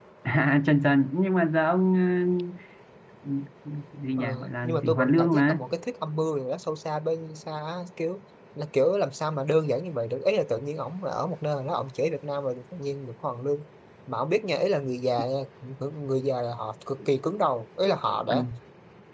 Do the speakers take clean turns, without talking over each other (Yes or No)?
No